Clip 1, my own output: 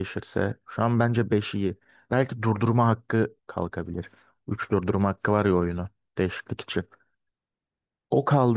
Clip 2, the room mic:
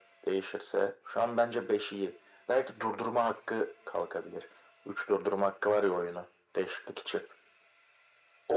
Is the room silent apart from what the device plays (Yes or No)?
Yes